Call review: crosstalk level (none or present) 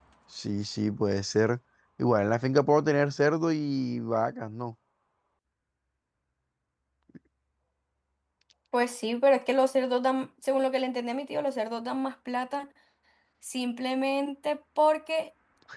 none